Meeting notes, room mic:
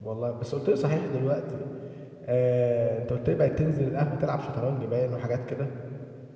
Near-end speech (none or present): present